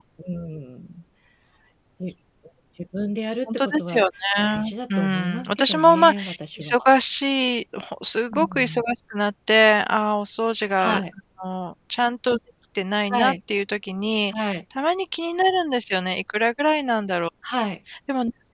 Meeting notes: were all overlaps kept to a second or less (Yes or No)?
No